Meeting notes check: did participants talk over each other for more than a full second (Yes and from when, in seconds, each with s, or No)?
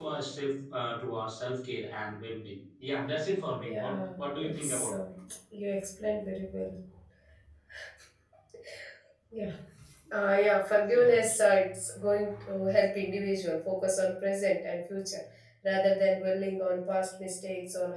Yes, from 3.6 s